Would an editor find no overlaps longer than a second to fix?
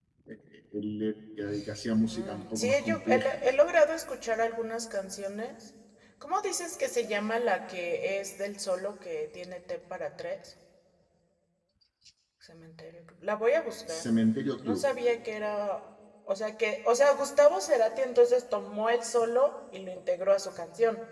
No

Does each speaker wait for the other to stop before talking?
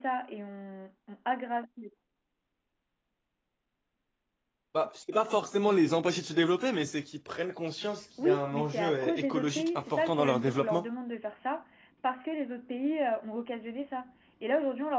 No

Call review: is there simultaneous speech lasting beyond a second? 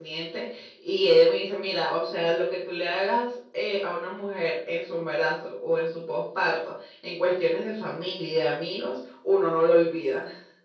No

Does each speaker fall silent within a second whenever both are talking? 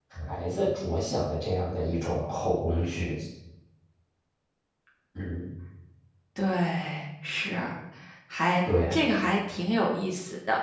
Yes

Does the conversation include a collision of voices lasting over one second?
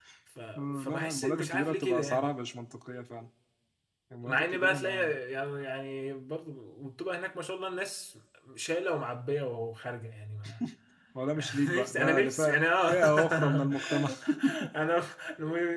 Yes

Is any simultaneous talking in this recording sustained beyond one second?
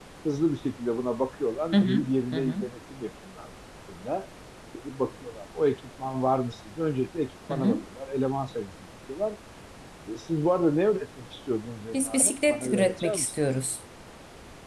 Yes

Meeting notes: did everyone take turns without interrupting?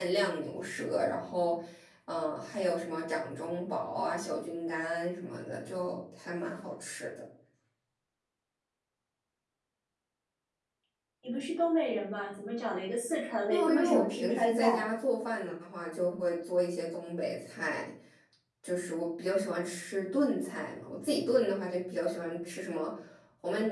No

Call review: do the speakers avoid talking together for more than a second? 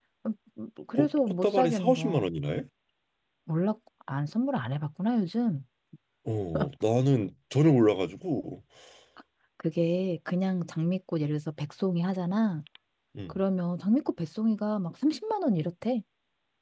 No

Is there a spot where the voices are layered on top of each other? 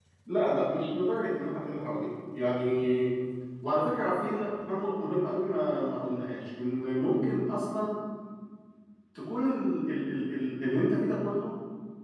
No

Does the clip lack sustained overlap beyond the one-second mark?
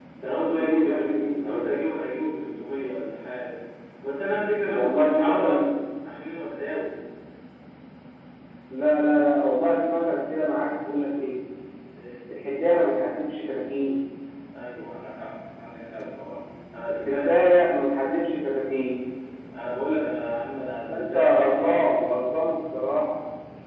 No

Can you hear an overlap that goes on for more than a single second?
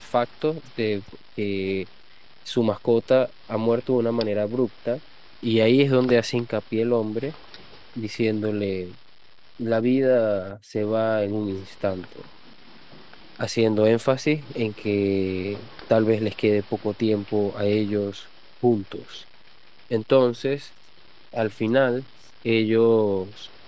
No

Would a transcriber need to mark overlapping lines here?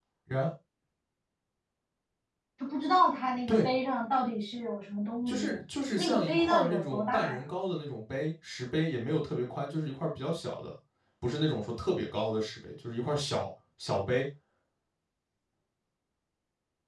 Yes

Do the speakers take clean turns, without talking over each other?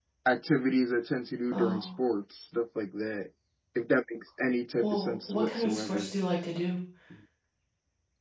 No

